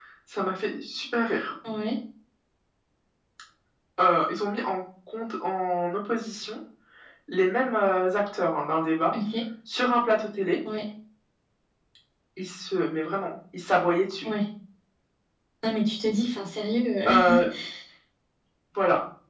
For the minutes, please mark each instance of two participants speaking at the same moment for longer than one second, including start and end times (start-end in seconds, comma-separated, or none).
none